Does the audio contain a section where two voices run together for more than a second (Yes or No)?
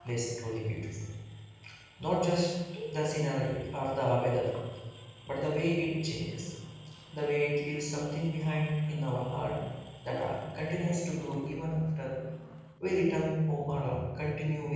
No